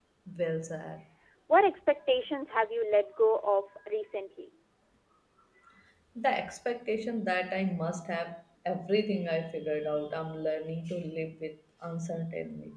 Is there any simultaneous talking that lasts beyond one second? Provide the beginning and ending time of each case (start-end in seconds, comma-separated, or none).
none